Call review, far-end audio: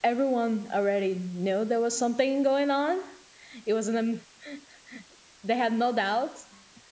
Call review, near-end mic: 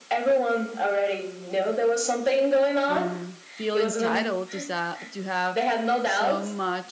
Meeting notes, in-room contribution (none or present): present